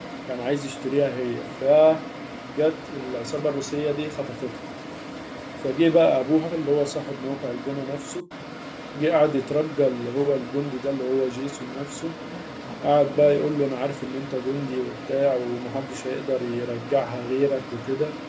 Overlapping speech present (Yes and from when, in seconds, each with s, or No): No